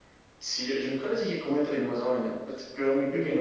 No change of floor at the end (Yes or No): No